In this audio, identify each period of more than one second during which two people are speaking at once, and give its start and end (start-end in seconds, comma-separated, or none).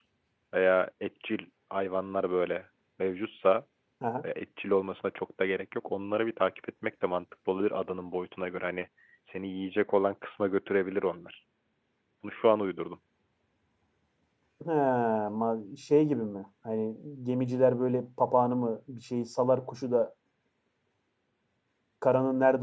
none